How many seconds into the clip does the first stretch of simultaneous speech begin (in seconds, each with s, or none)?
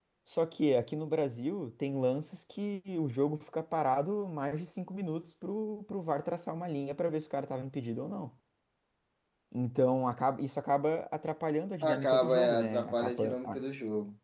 11.8 s